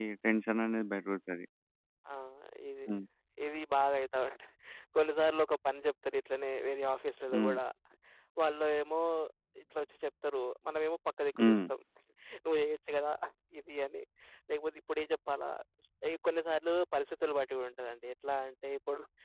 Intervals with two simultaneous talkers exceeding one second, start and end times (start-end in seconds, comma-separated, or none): none